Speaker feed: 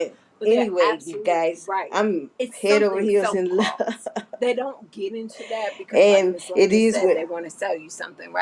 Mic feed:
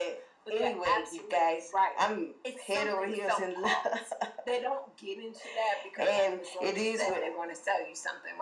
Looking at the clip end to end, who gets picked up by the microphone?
echo only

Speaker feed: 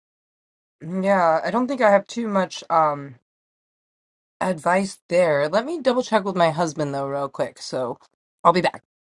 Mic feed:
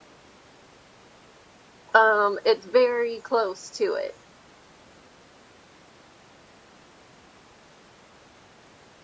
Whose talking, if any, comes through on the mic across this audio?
user only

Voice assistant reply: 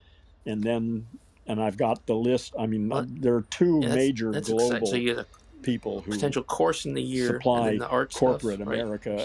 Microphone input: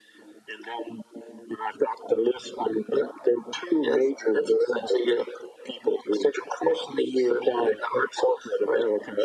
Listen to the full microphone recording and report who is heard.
echo only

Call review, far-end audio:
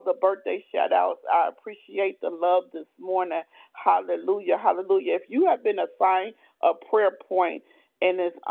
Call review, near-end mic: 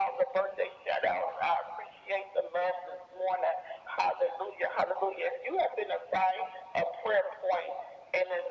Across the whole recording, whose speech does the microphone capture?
echo only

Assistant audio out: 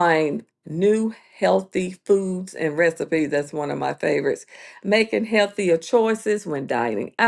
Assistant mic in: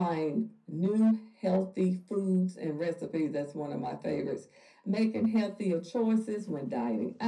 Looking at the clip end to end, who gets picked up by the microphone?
echo only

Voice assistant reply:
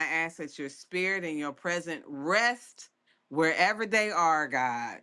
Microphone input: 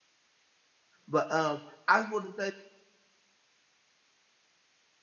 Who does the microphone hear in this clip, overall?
user only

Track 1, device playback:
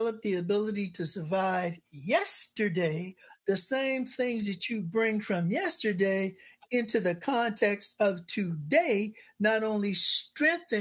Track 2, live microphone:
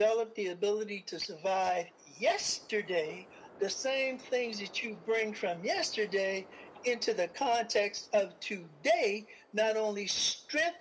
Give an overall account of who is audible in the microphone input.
echo only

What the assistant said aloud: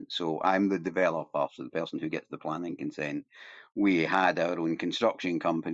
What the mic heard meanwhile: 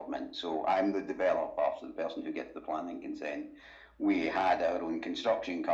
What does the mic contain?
echo only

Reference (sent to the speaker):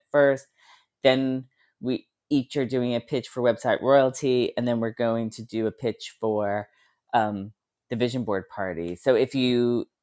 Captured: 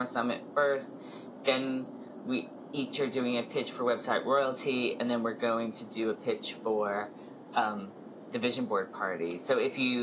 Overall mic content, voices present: echo only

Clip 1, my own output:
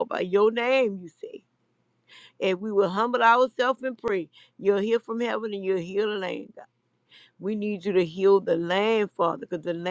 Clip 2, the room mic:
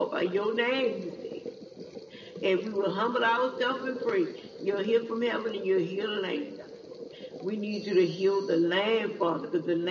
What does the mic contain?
echo only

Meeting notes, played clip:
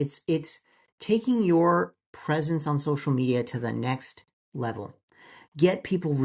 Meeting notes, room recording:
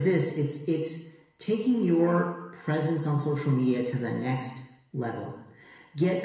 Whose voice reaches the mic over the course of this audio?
echo only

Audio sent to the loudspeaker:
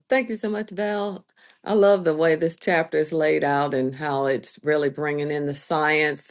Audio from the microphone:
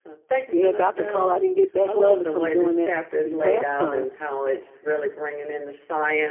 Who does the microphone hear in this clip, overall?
both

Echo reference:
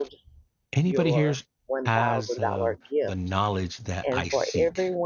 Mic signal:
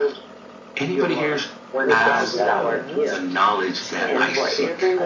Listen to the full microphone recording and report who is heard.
both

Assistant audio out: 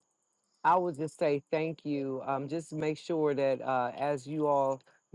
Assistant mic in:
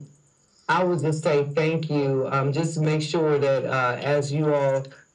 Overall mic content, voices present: echo only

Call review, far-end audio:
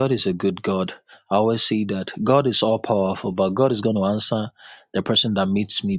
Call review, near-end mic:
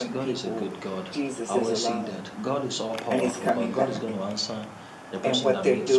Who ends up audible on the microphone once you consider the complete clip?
both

